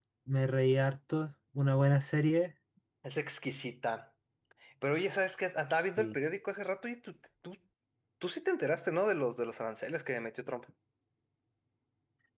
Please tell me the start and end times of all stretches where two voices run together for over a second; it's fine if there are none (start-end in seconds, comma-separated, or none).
none